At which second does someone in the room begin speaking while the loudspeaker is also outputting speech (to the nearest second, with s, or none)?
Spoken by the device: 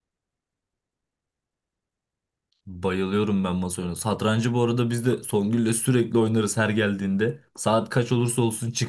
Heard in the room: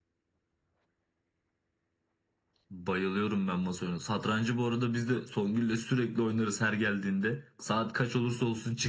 none